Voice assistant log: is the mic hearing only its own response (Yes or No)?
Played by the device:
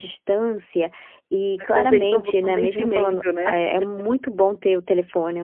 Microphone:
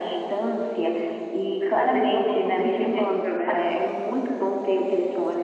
Yes